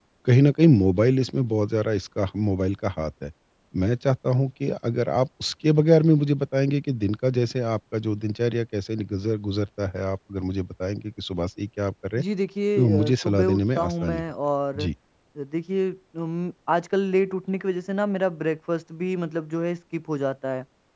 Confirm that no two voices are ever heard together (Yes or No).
No